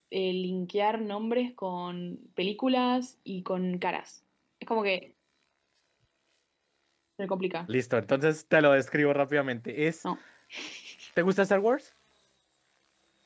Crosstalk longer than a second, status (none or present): none